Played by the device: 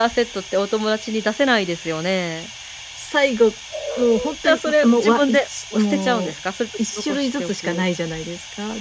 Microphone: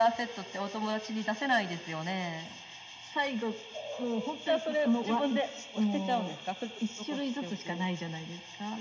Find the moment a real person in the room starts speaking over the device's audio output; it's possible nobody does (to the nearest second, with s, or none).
none